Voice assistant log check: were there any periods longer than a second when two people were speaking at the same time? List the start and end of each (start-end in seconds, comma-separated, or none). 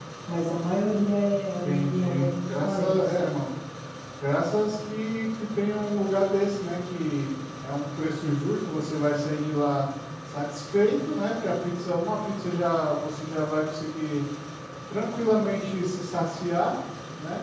1.6-3.4